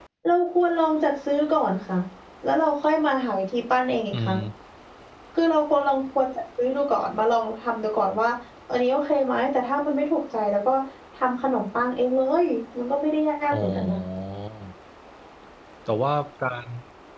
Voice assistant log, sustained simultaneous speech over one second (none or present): none